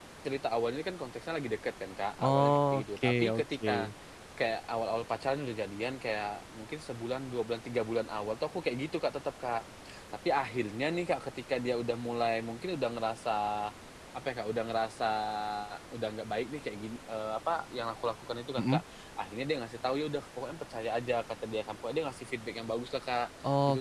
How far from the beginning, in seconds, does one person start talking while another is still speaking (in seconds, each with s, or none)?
2.2 s